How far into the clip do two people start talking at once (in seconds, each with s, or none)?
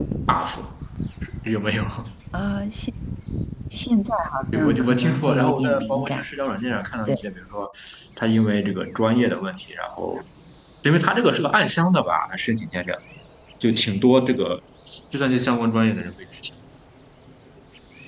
4.5 s